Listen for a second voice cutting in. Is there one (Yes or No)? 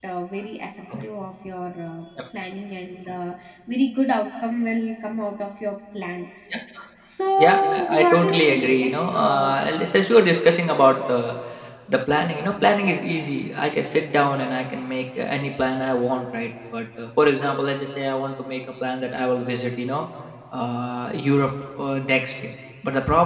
Yes